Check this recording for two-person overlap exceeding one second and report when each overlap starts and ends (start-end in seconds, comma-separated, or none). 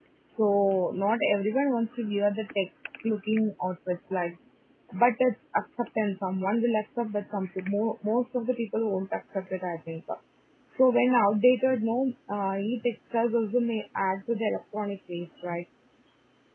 none